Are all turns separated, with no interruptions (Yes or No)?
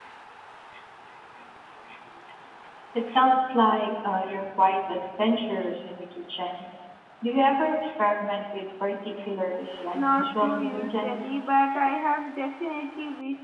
No